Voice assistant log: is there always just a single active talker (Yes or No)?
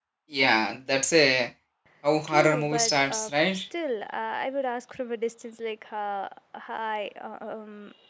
No